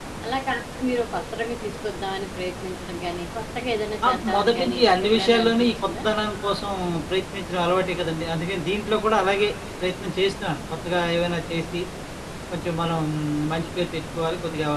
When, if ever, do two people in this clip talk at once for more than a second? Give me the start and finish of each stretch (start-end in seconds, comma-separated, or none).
4.0-6.0